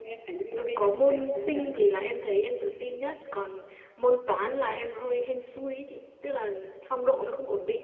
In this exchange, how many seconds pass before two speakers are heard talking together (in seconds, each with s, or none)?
0.6 s